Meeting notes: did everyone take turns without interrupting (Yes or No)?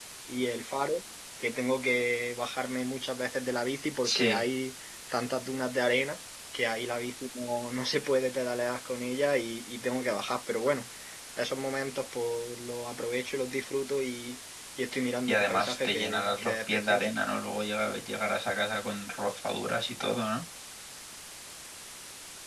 No